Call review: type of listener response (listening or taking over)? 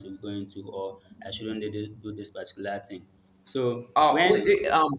taking over